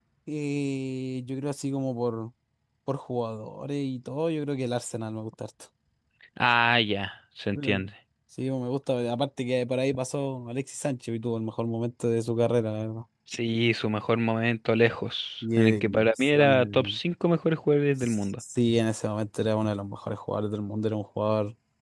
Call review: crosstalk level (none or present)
present